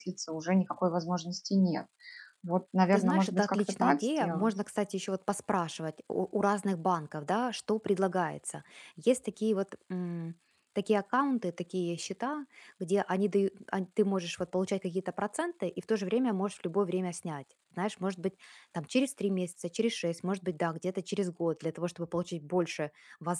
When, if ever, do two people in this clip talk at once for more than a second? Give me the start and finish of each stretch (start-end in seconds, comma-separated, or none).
2.9-4.5